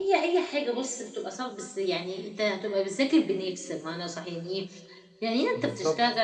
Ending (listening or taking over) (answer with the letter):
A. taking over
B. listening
B